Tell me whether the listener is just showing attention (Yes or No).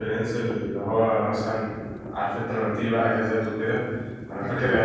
Yes